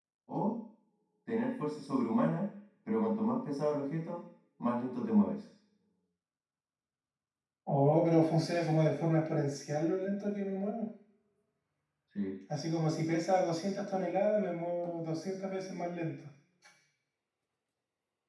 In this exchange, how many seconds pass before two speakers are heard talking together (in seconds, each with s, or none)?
none